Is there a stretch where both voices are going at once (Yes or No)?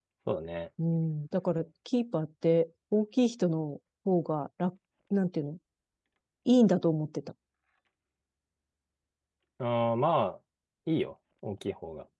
No